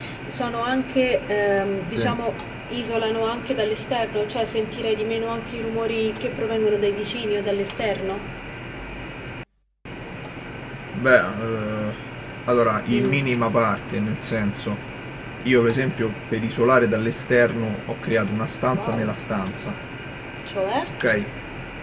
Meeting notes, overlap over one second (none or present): none